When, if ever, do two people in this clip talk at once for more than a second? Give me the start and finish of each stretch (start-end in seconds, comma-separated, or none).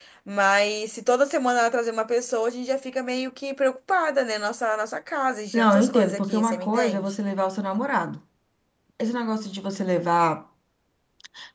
5.5-7.1